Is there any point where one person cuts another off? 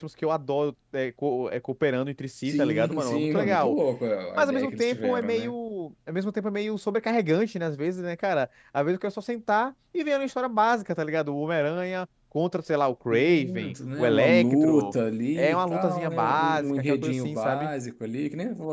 Yes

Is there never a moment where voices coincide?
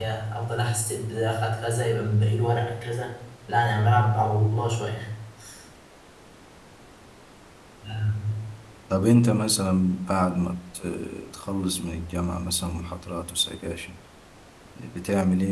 Yes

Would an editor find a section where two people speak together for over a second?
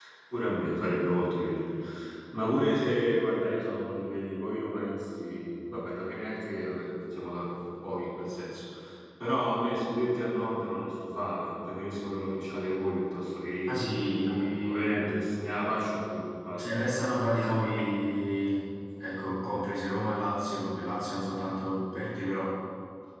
Yes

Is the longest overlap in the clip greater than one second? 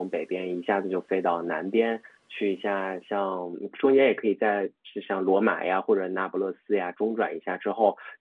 No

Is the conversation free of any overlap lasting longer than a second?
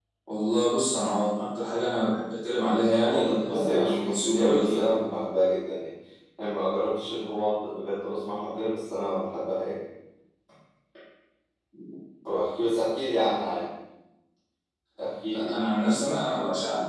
No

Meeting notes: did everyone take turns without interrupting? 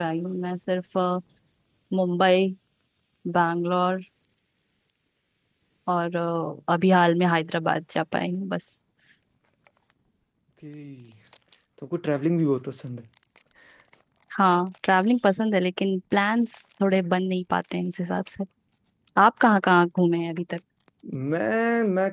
Yes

